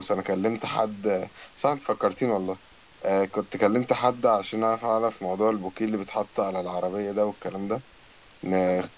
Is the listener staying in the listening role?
Yes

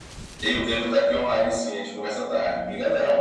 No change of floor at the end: No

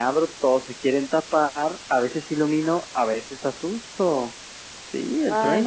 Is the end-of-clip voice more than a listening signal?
Yes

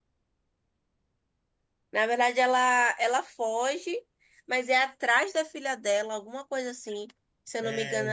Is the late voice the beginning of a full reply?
No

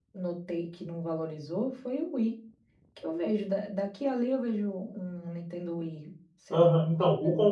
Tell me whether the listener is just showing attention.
No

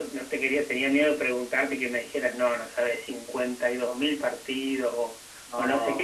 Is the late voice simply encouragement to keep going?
Yes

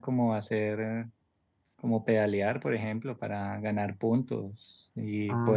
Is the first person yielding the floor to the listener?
No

